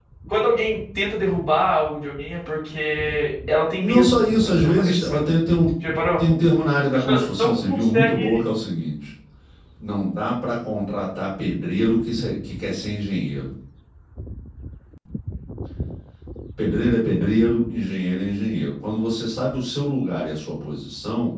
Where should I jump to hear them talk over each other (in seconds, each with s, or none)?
3.8 s